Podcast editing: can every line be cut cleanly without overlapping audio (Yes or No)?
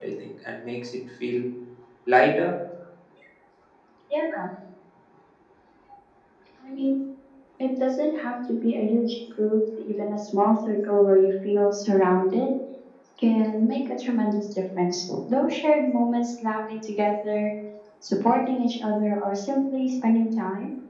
Yes